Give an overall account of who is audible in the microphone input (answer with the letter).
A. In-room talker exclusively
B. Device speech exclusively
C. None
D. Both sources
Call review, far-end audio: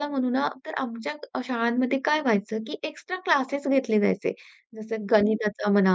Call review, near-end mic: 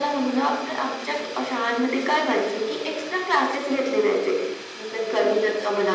B